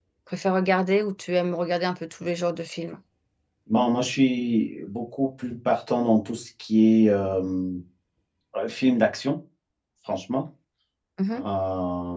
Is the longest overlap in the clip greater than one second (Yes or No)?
No